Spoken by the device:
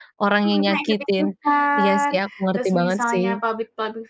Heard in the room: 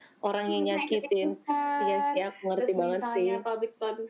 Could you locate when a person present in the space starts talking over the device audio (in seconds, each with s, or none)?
none